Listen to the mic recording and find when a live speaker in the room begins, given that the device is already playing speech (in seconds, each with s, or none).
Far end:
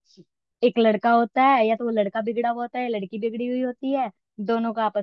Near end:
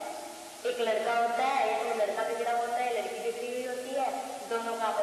none